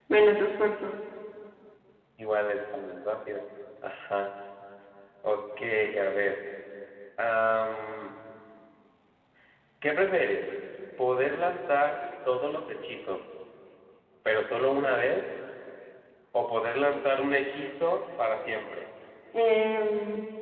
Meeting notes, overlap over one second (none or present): none